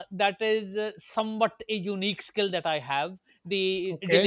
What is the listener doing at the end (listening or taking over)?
listening